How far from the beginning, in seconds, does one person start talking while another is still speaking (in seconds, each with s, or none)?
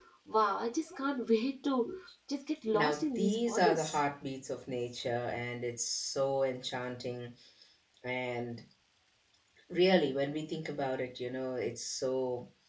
2.7 s